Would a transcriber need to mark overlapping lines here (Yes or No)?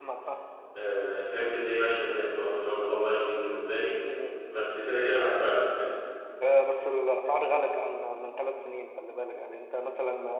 No